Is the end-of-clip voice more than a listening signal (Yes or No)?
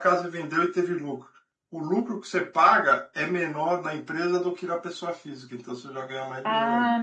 Yes